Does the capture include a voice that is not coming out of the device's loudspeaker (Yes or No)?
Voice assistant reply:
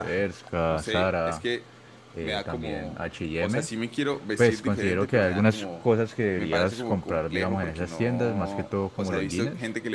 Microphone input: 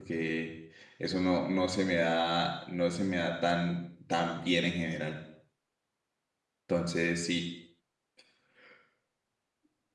Yes